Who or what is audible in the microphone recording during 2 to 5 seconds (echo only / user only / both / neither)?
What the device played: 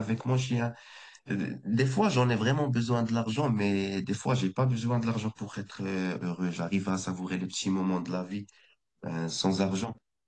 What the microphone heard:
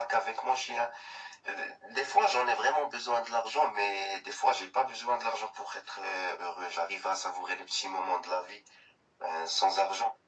echo only